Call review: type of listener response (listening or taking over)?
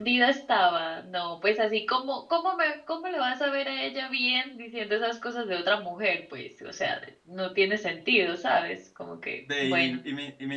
taking over